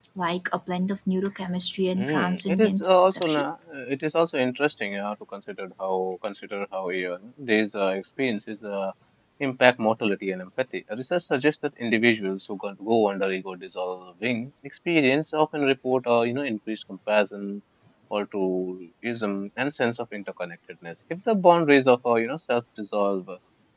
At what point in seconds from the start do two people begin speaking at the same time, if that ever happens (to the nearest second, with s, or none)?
2 s